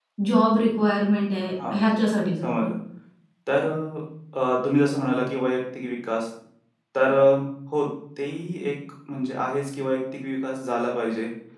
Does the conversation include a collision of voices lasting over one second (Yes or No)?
No